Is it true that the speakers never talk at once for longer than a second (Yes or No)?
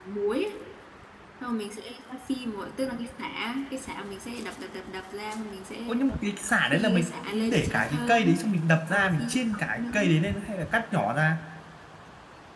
No